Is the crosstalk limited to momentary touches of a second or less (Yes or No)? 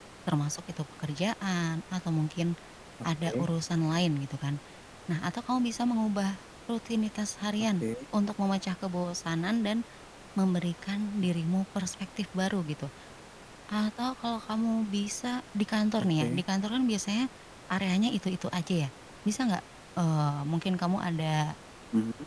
Yes